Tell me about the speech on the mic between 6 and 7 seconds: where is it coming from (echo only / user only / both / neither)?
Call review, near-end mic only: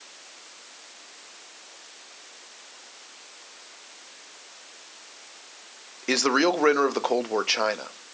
user only